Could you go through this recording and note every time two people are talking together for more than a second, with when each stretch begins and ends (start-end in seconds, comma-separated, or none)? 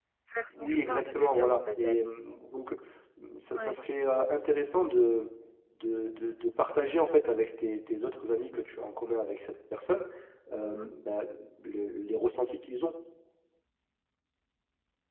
0.5-2.0